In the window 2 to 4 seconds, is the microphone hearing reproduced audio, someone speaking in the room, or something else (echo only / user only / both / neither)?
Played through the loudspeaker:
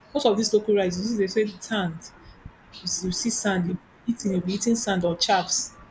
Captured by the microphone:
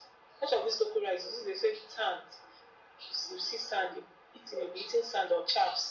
echo only